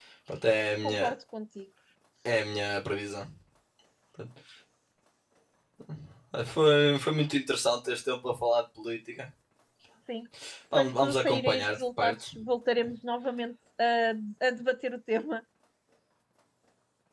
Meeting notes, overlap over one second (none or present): present